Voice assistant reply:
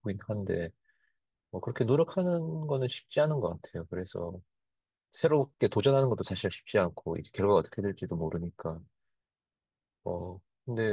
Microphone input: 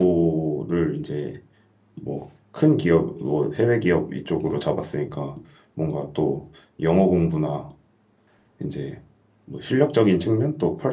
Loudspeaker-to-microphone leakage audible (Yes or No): No